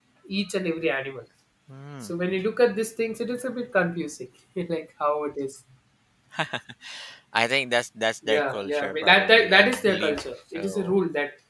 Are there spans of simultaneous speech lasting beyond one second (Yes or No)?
Yes